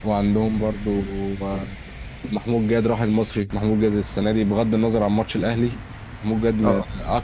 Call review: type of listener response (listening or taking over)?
listening